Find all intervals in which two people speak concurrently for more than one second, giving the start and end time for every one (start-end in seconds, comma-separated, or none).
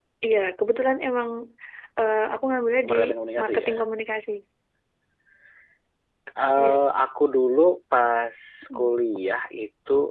none